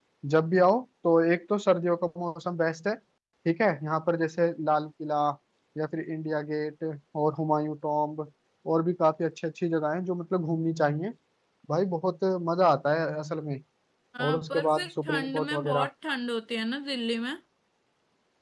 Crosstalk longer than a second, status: present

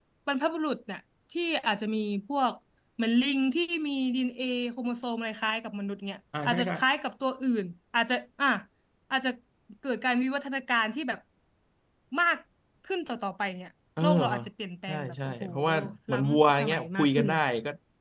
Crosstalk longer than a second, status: present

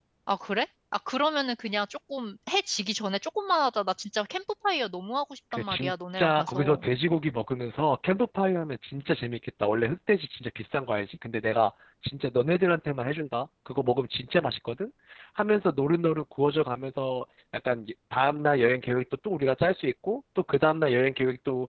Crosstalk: present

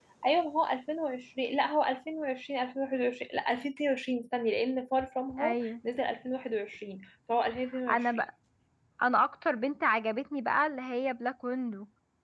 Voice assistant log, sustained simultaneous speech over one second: none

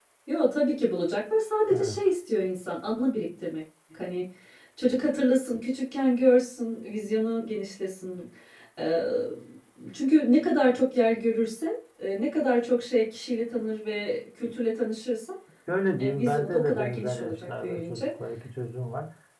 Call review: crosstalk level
present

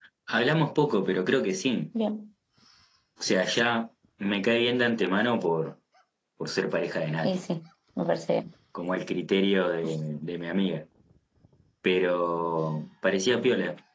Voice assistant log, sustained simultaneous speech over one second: none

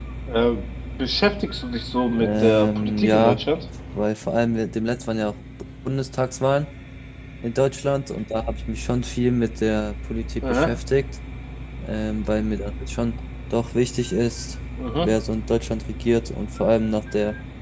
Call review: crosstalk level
present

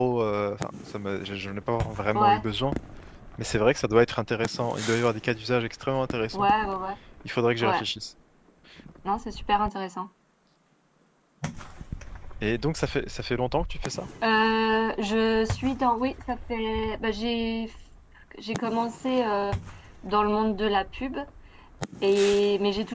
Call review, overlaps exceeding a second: none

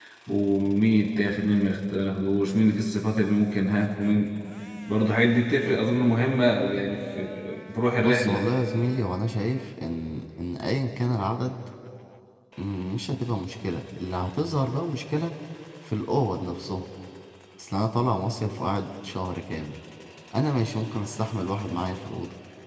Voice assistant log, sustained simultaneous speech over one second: none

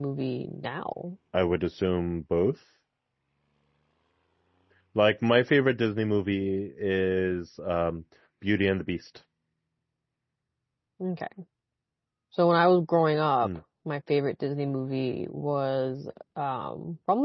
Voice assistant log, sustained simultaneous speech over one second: none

